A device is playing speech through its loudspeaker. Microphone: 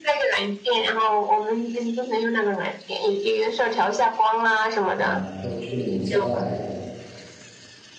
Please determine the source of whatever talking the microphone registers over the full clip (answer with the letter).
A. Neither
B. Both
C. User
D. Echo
B